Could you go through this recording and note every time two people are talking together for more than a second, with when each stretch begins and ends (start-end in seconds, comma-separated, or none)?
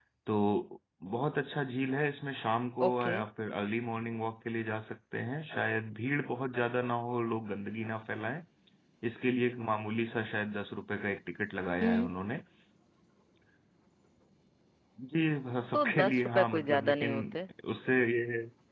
15.7-17.1